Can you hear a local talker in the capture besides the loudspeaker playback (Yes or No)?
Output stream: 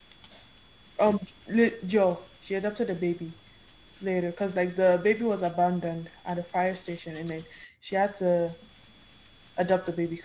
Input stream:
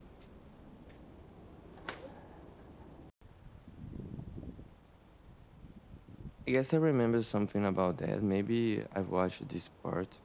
Yes